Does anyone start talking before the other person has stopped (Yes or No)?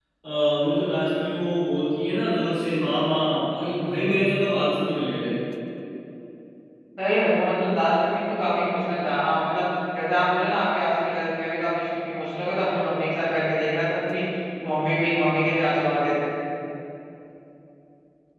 No